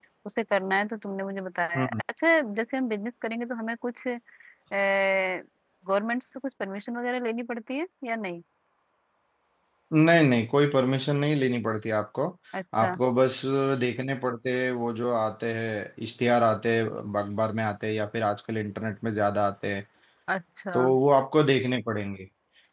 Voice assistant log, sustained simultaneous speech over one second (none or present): none